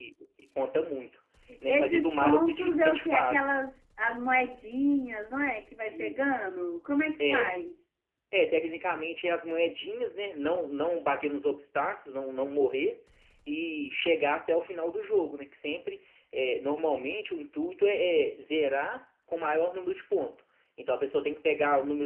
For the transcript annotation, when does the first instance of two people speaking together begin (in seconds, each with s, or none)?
1.7 s